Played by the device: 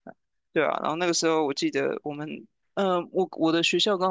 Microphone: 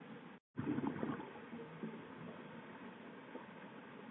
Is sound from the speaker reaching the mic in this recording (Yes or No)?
No